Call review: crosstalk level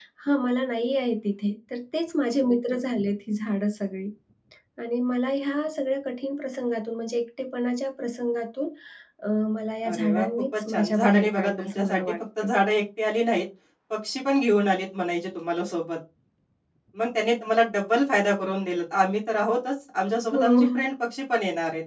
present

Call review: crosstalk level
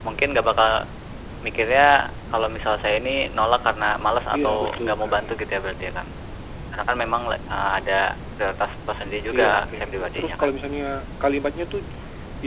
present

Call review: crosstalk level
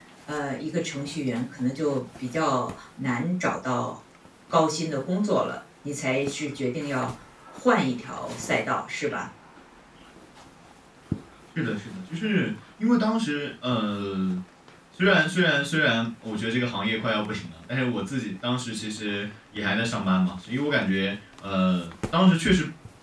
none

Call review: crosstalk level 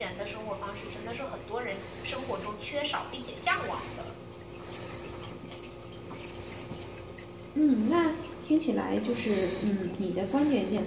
none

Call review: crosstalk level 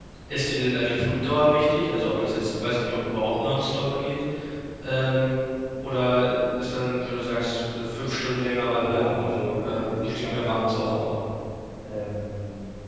present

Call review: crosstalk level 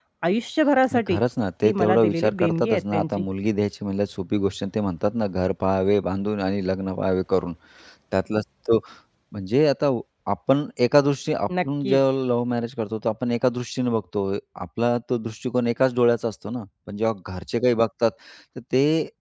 present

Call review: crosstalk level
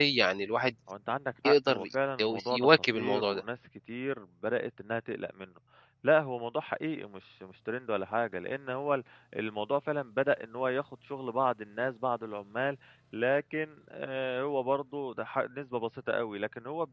present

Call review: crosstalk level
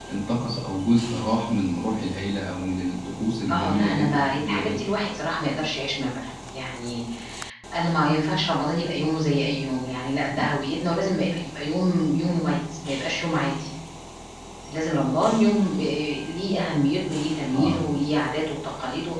present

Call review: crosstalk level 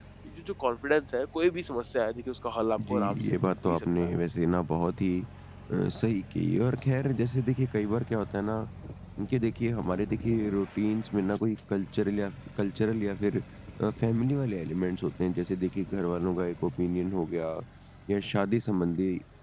present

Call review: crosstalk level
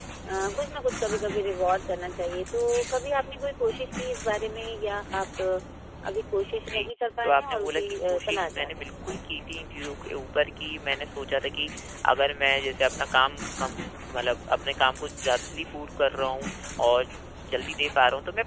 present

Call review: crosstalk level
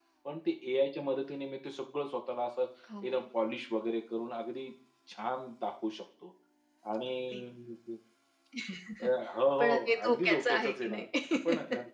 present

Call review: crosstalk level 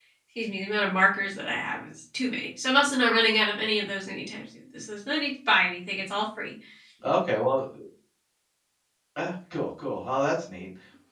none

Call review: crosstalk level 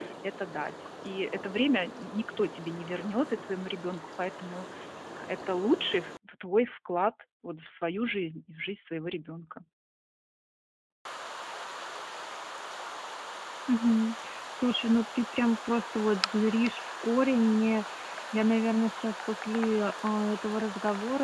none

